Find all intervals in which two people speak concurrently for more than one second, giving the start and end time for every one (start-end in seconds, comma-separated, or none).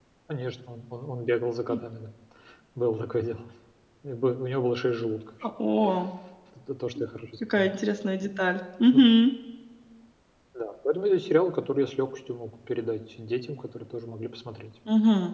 none